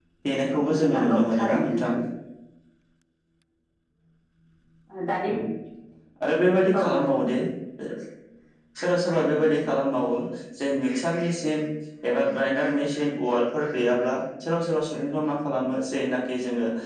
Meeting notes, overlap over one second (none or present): present